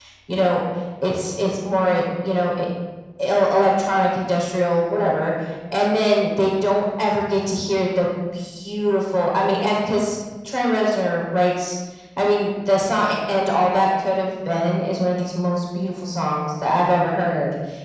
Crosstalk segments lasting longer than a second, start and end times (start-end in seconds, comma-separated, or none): none